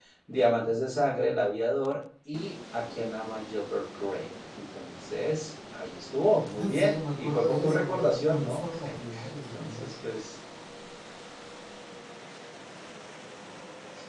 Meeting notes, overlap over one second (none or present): present